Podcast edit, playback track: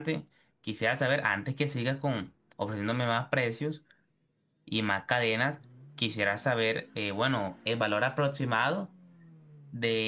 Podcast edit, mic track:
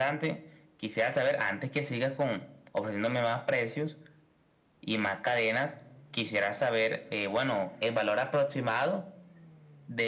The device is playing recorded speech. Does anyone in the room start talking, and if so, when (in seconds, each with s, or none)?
none